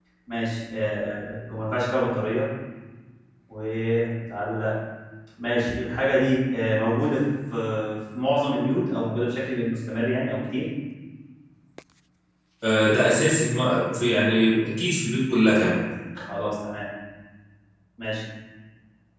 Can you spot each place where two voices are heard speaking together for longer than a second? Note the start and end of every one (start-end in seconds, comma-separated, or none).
none